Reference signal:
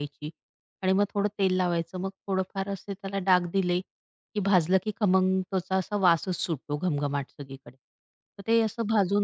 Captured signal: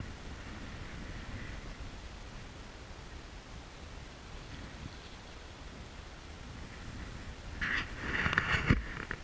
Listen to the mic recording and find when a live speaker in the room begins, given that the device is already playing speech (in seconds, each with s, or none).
none